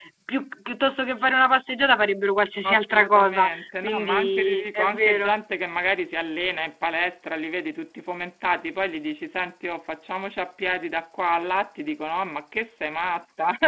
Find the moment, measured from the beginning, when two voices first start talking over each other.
2.6 s

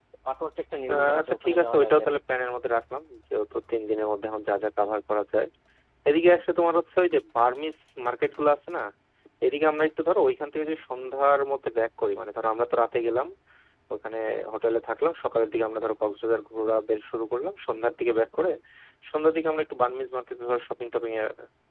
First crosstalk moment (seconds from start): 0.9 s

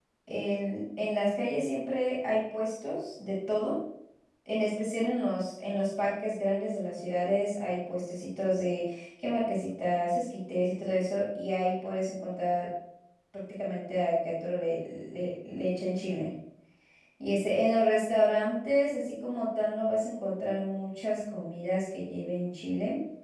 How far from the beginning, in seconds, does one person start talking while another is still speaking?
none

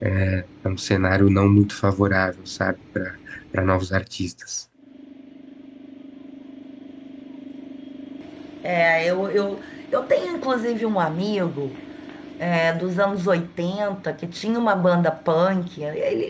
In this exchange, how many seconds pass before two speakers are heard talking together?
none

